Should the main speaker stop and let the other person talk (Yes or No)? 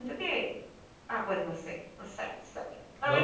Yes